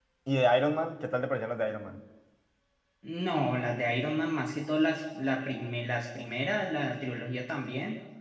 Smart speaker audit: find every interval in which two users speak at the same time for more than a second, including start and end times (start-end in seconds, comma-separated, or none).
none